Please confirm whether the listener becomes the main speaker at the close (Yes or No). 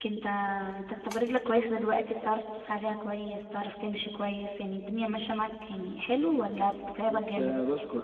Yes